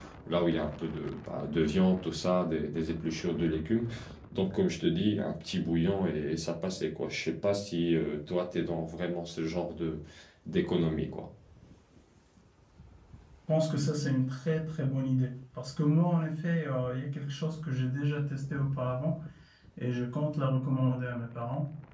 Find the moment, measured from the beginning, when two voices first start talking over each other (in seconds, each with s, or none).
none